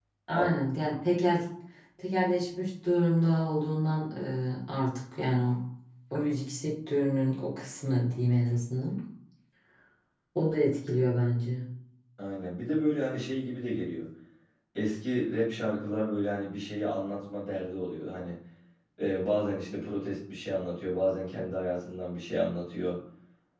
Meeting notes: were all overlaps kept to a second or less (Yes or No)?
Yes